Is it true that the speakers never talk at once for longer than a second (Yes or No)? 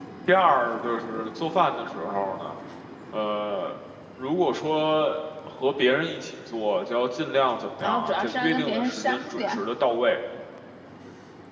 No